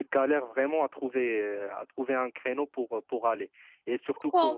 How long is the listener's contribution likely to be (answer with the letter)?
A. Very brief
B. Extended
A